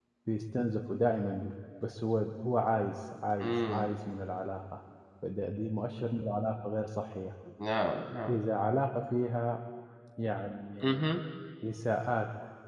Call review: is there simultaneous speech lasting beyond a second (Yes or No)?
No